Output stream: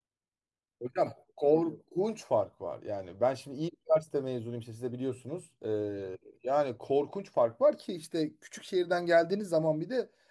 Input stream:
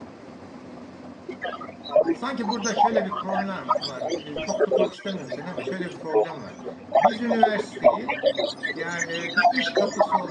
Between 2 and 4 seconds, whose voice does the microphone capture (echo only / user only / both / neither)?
both